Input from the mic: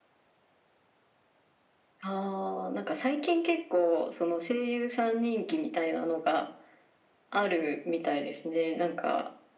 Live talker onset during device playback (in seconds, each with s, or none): none